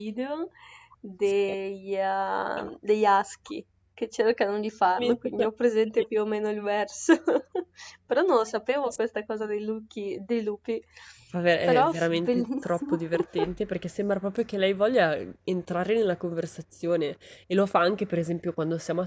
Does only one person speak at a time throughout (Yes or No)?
No